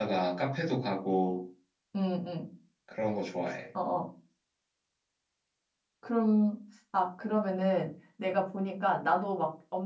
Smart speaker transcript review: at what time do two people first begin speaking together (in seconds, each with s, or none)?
none